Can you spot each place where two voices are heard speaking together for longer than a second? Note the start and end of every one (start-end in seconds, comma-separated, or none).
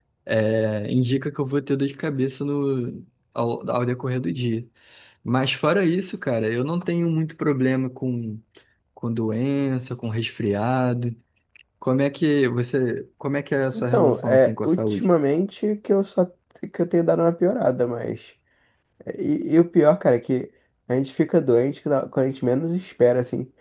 13.7-15.1